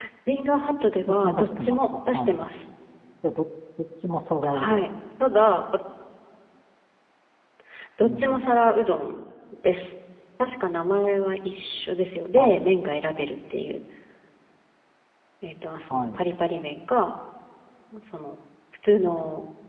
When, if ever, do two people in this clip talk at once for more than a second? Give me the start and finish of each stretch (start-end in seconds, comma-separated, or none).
1.1-2.4